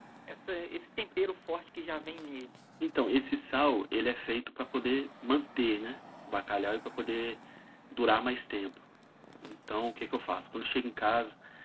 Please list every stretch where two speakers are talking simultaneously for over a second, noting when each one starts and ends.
none

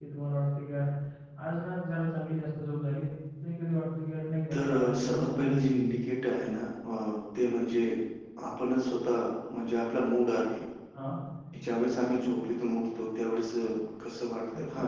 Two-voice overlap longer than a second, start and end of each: 4.5-5.9

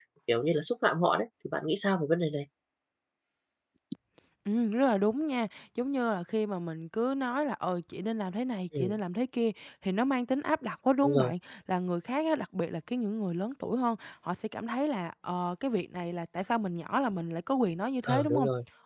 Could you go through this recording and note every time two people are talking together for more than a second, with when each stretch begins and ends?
none

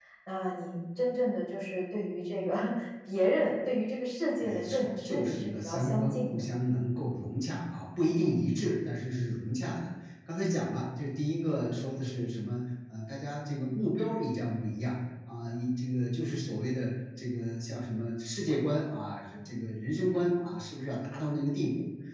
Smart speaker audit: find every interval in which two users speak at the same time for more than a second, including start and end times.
4.4-6.4

